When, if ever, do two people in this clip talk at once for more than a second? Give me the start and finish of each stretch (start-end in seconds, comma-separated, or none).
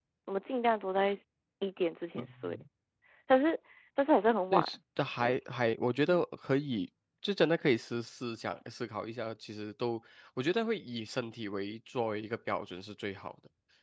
none